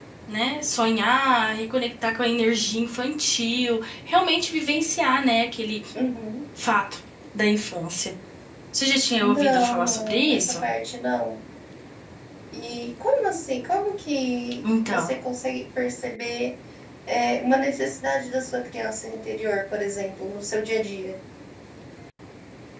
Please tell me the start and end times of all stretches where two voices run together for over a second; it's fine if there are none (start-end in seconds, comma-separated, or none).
9.2-10.6